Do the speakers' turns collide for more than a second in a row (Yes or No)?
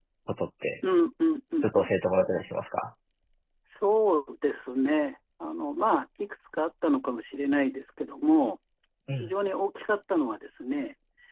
No